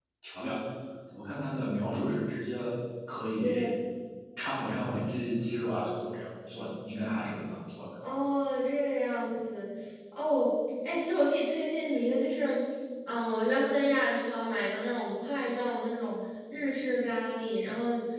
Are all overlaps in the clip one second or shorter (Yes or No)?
Yes